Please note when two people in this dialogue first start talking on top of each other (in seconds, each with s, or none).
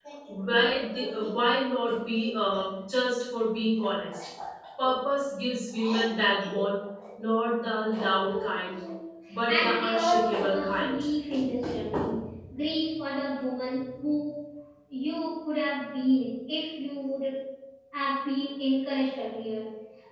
9.5 s